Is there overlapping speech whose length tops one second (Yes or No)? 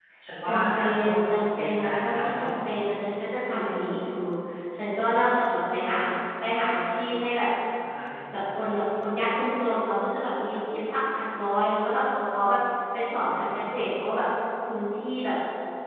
Yes